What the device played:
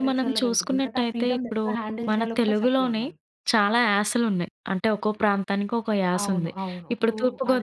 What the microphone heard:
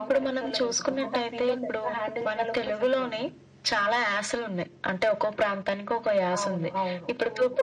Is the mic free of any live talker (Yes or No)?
No